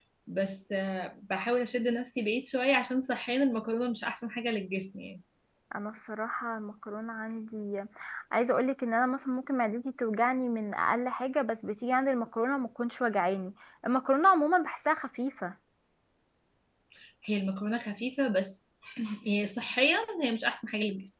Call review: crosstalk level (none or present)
none